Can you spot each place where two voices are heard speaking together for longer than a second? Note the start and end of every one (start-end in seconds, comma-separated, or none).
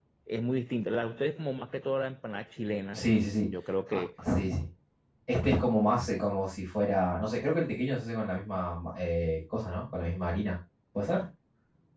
none